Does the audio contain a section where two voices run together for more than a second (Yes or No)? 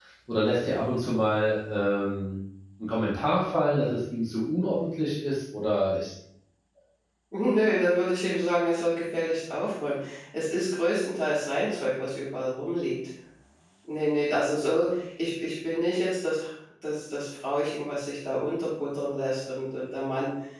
No